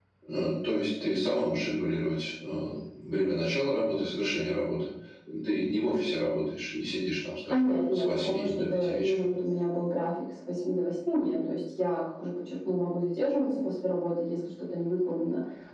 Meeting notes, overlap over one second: present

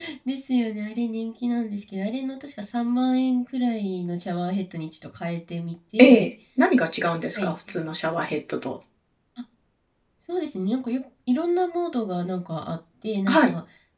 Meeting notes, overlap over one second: none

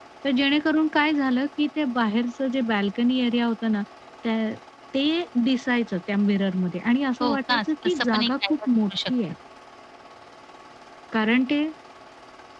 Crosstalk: present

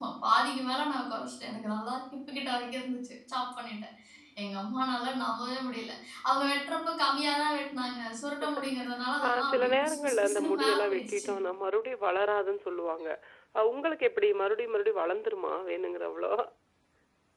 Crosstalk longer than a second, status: present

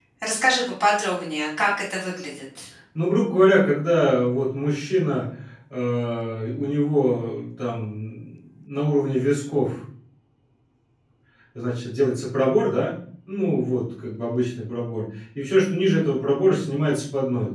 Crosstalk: none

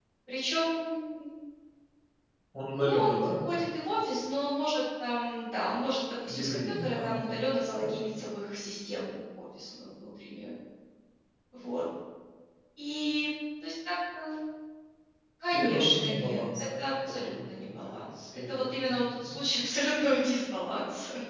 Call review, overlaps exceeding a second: present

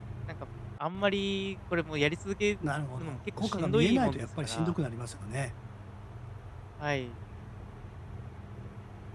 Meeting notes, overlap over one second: present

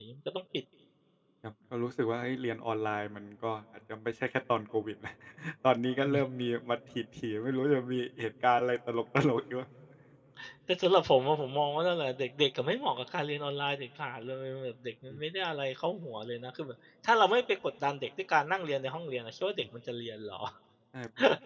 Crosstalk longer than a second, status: none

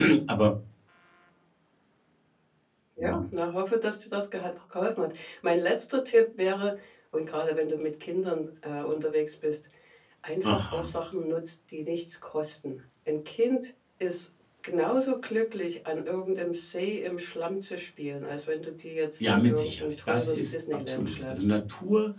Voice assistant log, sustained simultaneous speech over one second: present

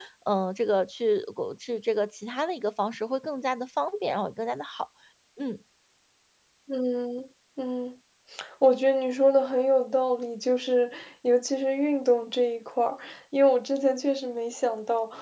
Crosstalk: none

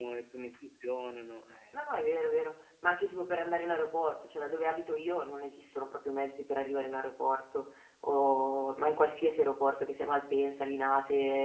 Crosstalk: none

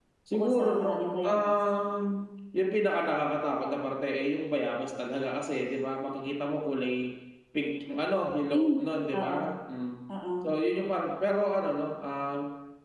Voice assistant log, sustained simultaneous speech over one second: present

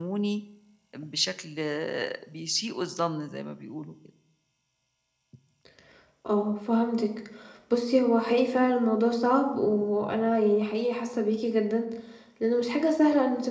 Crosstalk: none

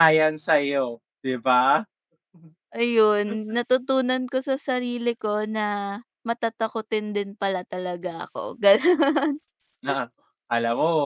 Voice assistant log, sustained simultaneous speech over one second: none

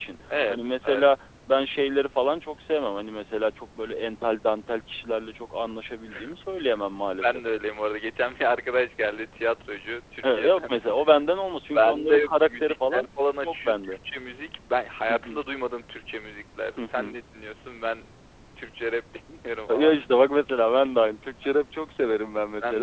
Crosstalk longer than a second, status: present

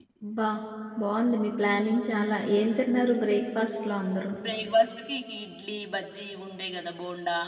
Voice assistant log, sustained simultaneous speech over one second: none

